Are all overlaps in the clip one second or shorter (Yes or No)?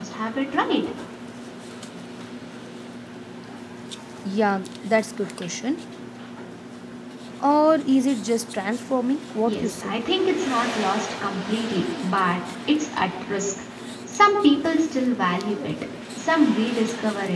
Yes